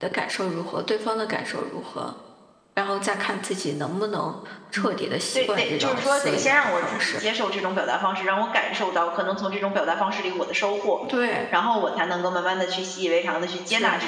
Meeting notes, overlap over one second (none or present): present